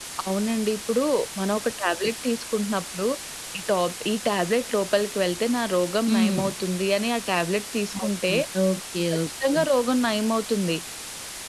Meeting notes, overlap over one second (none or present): none